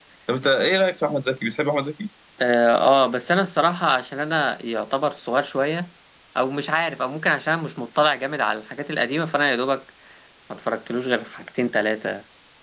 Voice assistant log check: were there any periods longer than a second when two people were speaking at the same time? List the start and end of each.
none

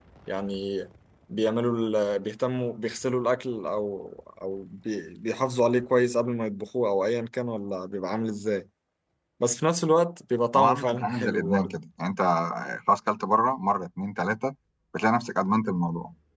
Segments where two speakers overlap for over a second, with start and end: 10.6-11.8

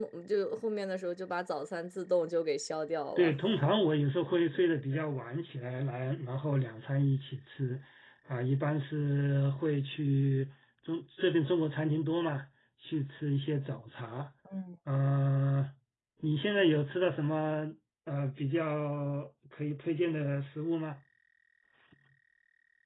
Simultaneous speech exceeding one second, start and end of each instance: none

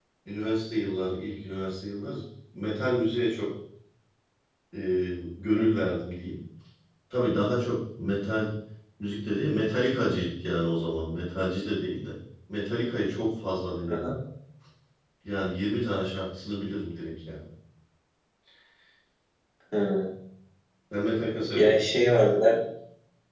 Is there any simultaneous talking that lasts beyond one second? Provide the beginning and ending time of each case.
none

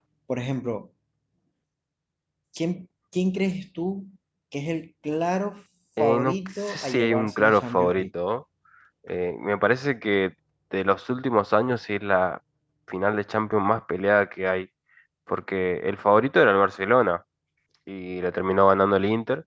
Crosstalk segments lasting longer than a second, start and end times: 6.0-8.0

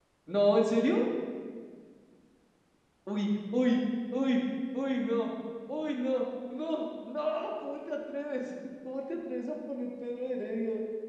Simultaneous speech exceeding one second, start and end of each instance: none

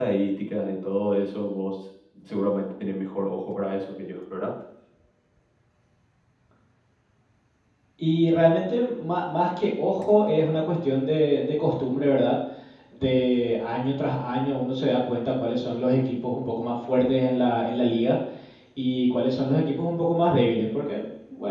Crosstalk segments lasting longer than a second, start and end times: none

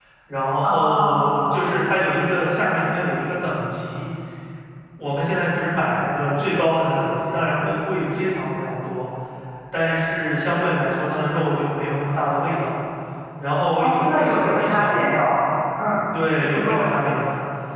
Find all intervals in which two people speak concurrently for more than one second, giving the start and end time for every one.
13.8-15.0

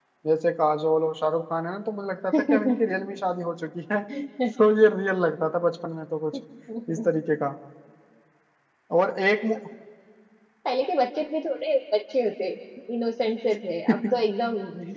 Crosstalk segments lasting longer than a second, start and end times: none

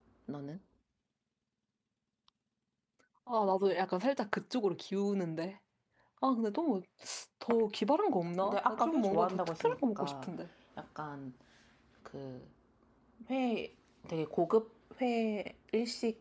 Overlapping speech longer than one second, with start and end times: 8.4-10.3

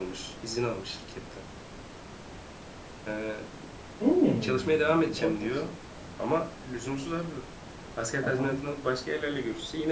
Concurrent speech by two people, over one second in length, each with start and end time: 4.4-5.6

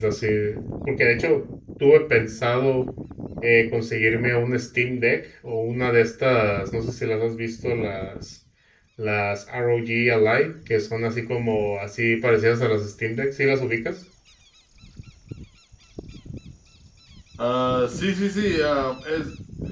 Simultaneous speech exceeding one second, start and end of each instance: none

